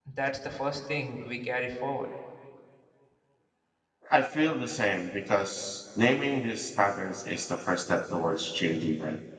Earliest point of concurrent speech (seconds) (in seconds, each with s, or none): none